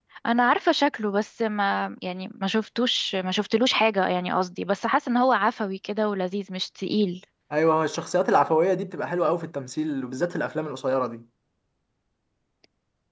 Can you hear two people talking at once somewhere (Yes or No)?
No